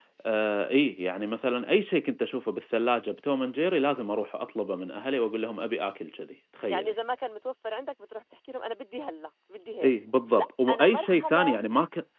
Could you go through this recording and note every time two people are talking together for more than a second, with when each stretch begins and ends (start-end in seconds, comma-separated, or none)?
10.4-11.6